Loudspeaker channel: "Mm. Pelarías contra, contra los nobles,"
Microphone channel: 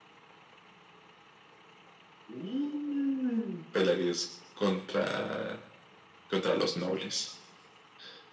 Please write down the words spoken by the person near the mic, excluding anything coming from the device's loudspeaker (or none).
none